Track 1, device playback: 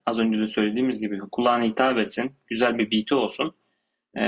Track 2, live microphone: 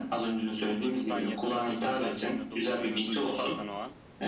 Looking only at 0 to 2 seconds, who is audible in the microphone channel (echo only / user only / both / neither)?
both